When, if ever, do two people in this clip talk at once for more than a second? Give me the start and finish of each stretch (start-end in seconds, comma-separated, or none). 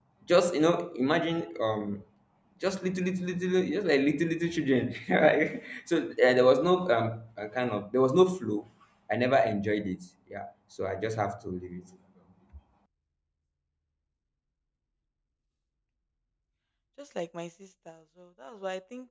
none